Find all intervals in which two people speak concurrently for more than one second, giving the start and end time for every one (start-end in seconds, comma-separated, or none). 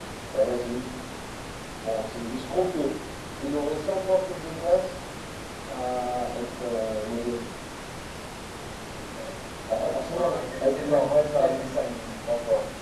10.1-11.7